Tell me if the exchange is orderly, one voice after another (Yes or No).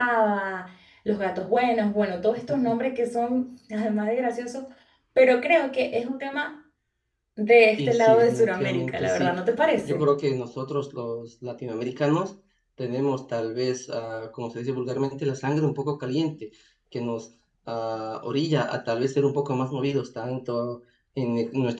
No